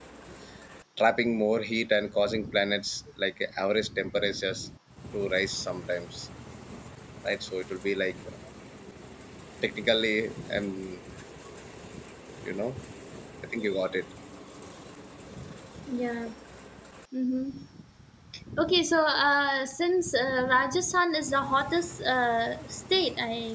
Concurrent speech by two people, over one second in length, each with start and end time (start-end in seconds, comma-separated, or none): none